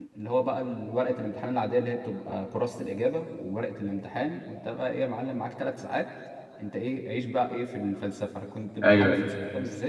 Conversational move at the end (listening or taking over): listening